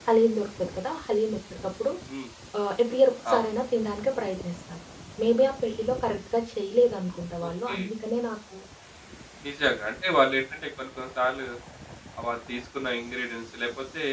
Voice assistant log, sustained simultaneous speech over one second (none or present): none